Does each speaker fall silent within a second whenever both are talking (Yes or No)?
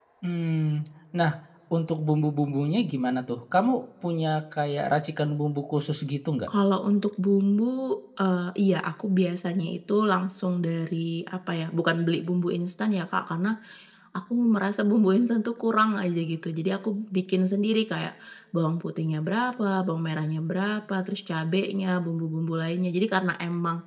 Yes